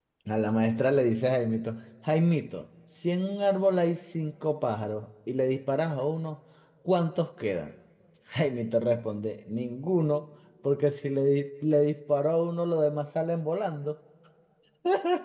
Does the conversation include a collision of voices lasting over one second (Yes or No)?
No